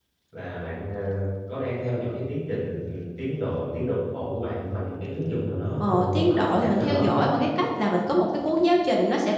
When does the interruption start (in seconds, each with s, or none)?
5.8 s